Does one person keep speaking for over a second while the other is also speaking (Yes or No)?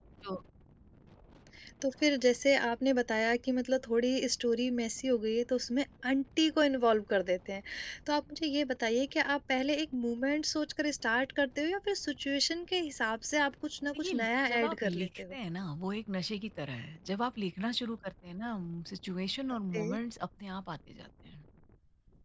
Yes